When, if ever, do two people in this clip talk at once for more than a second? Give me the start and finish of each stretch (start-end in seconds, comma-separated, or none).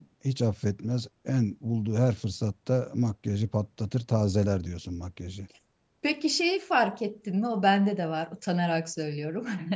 none